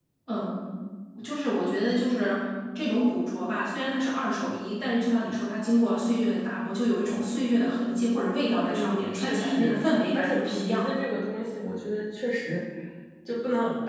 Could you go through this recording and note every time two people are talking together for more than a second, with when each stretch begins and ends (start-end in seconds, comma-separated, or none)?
8.6-10.9